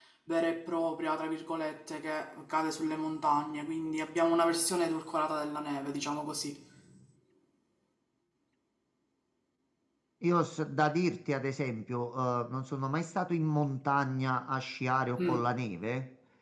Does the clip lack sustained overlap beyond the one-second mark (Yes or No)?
Yes